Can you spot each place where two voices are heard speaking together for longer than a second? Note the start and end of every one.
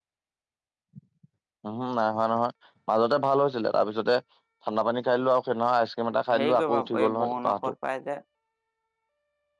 6.4-7.7

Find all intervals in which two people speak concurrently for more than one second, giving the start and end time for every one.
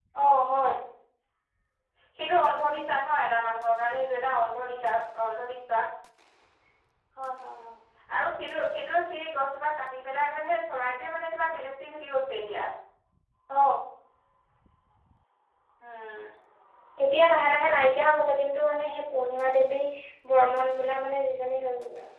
none

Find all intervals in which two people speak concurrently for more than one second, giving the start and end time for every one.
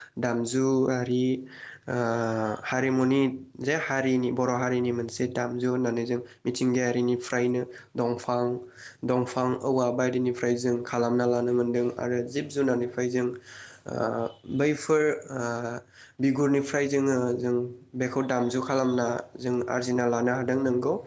none

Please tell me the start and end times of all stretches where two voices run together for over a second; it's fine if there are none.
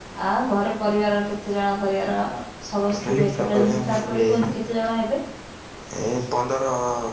2.9-4.2

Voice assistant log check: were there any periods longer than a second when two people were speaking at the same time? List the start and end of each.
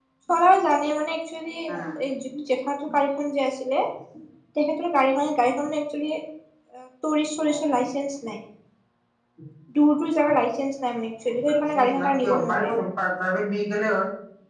11.5-12.7

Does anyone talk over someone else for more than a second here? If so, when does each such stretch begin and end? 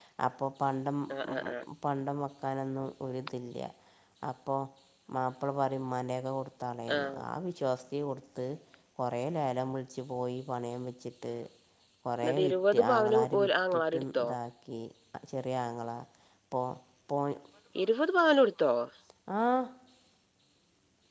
12.2-14.3

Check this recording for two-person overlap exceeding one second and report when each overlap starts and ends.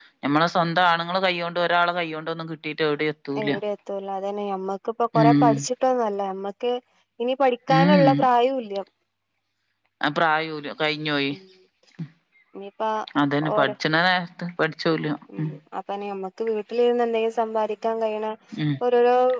none

